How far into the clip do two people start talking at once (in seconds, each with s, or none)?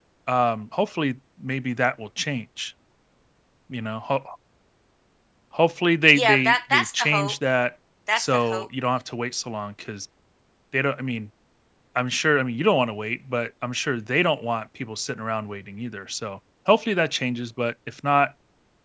6.1 s